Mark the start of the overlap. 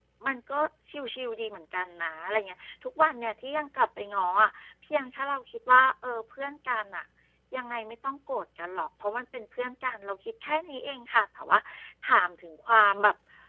none

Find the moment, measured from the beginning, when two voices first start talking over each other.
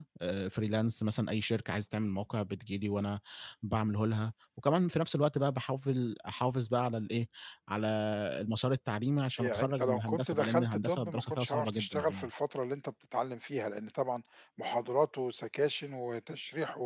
9 s

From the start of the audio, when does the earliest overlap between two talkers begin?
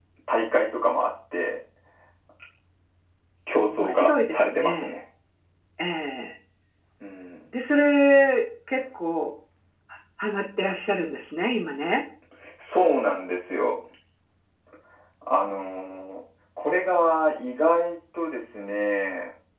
4 s

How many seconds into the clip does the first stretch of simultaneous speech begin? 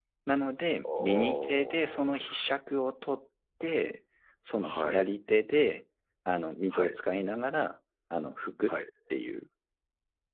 1 s

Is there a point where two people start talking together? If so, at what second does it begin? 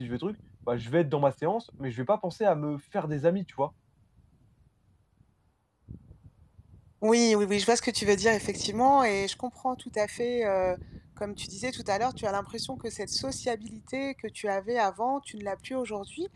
none

